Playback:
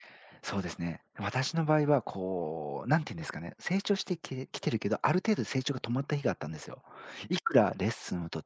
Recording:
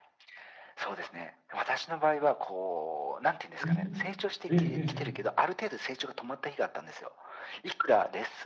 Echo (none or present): present